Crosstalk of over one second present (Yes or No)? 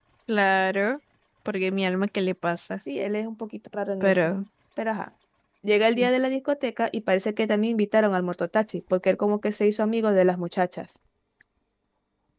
No